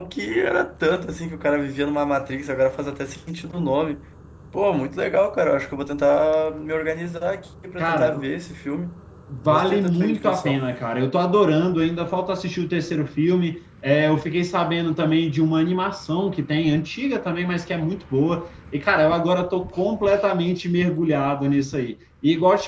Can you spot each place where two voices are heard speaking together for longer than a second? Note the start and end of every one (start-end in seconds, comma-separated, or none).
9.4-10.6